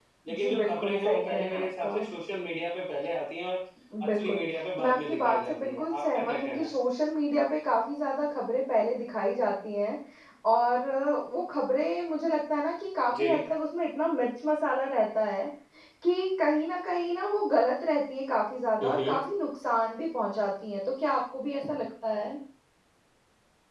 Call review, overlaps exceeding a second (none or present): present